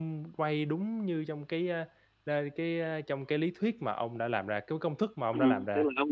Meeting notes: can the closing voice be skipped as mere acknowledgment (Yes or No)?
No